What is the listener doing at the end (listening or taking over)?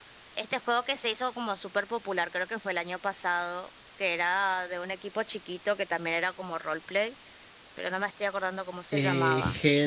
taking over